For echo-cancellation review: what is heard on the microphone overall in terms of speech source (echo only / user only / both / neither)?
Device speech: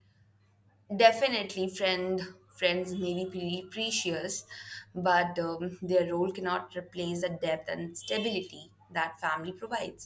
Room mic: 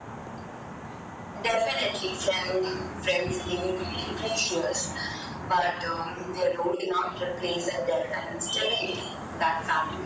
echo only